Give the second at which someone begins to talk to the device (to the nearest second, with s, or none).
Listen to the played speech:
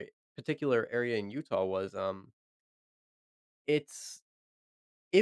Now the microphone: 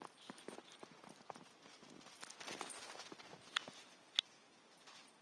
none